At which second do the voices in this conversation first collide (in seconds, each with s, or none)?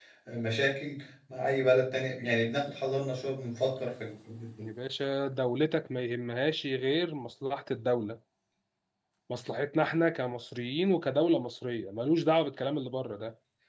none